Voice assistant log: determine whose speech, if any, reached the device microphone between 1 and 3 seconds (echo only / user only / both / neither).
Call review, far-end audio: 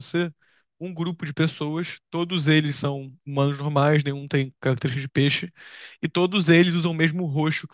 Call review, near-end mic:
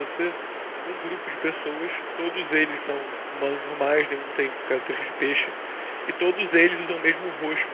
echo only